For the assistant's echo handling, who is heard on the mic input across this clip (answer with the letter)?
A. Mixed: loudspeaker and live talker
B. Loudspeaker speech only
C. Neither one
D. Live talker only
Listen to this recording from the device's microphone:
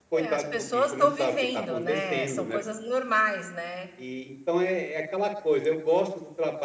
A